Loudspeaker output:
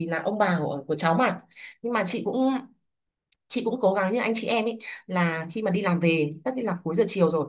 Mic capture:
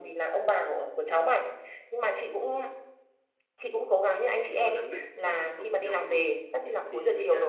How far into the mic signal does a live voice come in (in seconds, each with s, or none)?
4.4 s